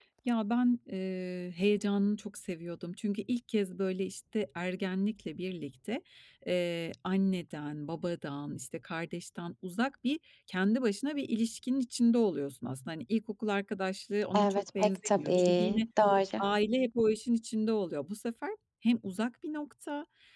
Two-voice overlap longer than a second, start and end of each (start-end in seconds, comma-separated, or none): 14.3-15.8